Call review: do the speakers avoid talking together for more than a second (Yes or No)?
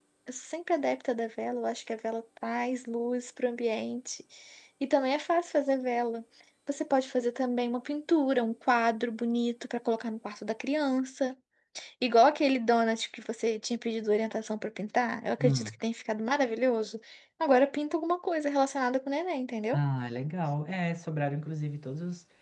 Yes